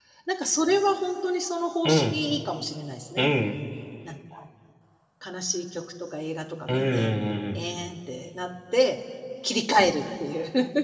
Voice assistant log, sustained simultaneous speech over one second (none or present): none